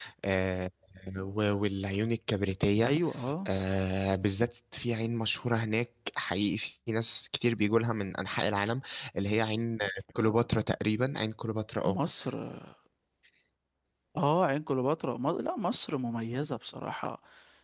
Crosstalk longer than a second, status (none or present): none